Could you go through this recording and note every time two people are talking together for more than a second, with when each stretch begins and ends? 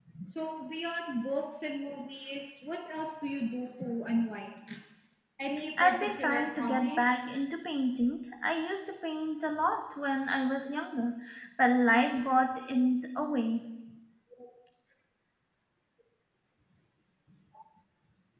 5.8-7.3

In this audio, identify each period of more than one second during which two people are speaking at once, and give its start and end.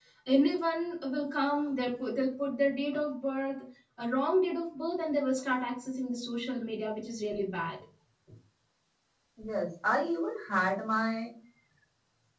none

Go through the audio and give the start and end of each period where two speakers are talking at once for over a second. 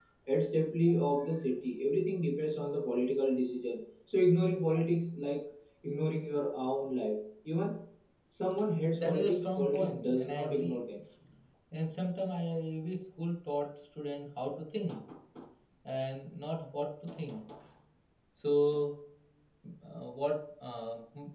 8.9-10.8

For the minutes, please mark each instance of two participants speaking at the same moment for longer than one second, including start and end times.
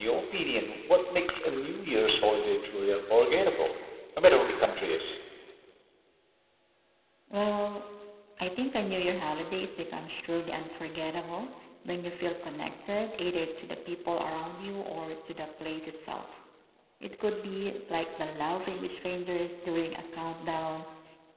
none

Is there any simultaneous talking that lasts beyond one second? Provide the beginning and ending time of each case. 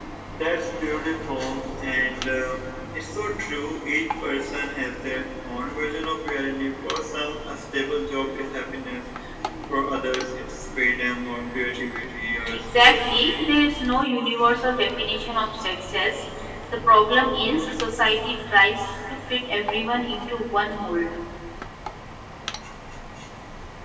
12.2-13.6

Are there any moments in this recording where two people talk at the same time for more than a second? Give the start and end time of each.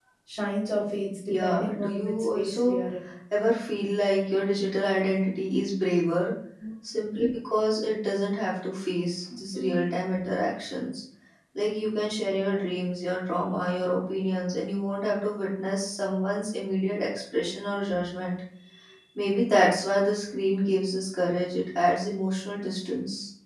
1.4-2.8

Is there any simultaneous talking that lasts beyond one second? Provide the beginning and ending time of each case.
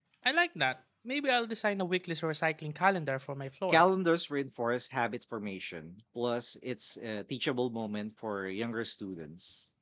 none

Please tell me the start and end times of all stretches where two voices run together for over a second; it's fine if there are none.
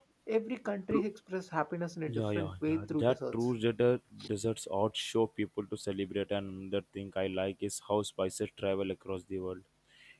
2.1-3.5

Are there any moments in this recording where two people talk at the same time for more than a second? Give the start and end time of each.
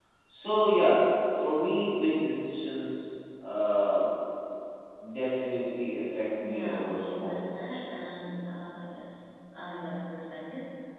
6.4-8.1

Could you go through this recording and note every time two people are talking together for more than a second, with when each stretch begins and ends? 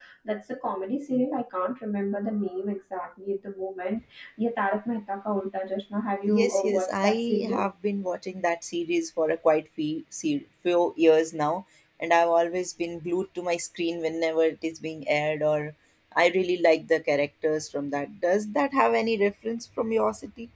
6.3-7.7

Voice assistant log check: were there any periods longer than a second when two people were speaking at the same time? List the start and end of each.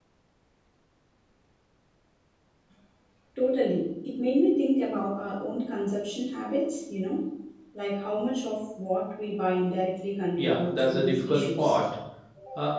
10.4-11.8

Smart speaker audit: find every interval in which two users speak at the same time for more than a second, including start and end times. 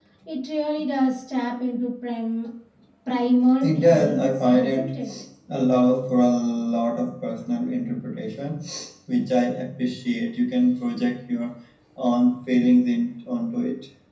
3.6-5.1

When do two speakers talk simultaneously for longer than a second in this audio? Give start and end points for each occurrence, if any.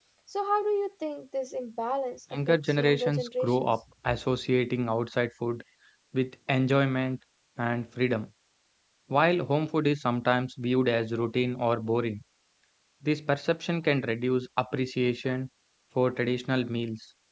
2.5-3.7

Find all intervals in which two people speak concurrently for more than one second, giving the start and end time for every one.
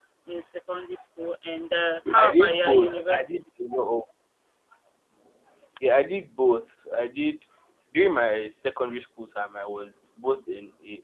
2.2-3.4

